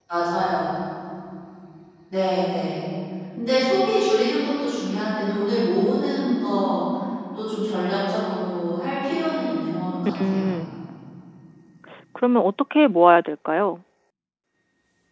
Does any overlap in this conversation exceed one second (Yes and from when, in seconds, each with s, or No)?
No